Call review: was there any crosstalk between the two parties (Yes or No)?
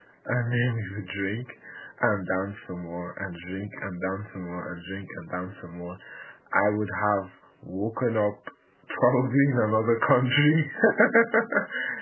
No